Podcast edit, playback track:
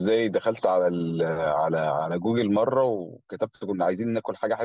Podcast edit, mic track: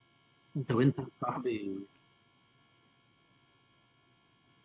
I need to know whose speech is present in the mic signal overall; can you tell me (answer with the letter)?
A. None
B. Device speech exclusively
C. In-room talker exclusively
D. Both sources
C